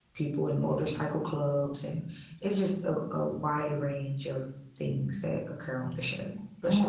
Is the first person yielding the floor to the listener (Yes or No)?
Yes